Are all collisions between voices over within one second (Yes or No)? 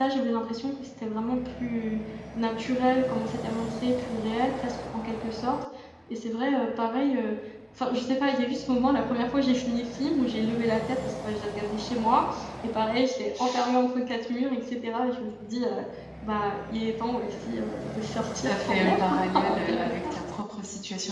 No